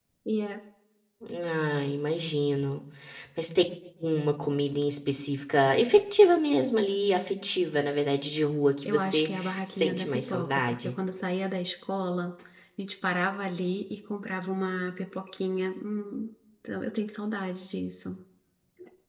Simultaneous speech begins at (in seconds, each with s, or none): 8.8 s